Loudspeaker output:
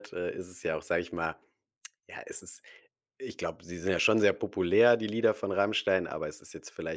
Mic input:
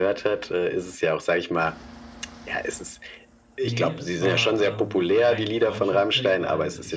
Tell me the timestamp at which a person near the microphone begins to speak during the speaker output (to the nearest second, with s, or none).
4 s